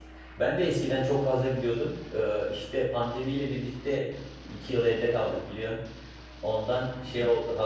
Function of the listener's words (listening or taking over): listening